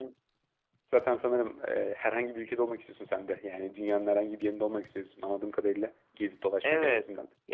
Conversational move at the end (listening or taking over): taking over